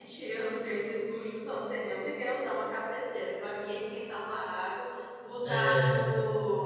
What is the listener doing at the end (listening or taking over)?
listening